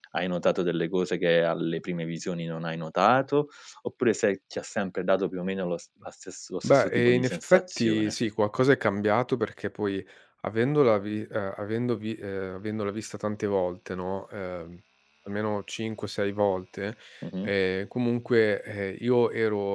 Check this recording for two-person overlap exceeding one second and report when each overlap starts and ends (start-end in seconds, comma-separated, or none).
6.6-8.1